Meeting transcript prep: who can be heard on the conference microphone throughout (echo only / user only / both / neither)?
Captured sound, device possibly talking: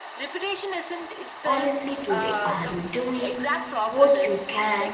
both